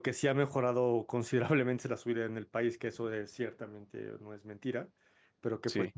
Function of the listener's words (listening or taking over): listening